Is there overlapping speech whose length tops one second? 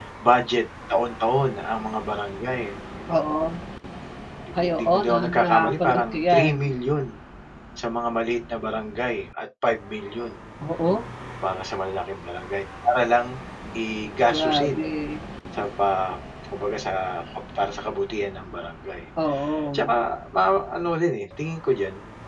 Yes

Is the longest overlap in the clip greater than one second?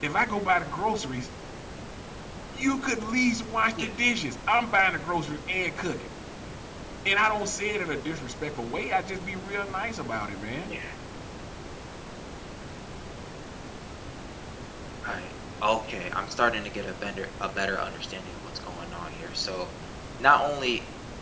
No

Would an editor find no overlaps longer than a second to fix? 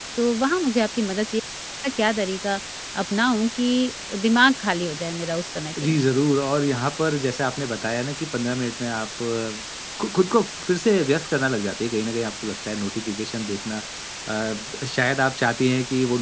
Yes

